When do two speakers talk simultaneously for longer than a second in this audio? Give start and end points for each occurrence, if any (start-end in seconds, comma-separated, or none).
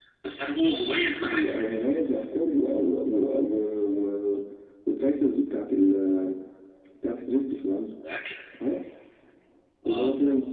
none